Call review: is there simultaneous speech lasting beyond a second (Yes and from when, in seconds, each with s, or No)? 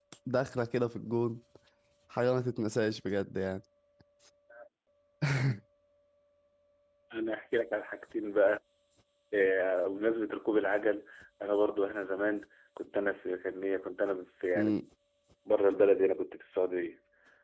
No